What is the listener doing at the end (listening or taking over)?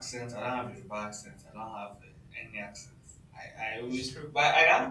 listening